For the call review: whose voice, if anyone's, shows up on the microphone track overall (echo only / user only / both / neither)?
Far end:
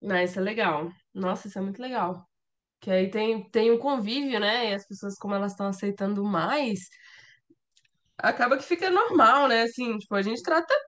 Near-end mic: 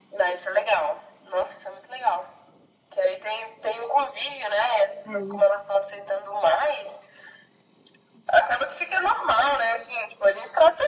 both